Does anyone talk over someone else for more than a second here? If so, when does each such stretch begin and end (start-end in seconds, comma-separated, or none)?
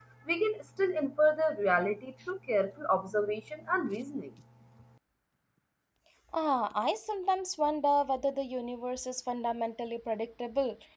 none